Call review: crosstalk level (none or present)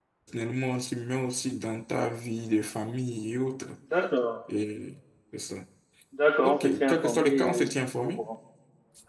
present